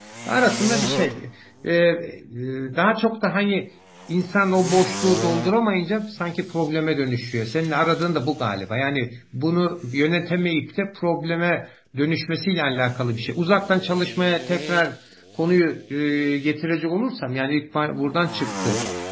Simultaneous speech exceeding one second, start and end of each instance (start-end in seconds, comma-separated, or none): none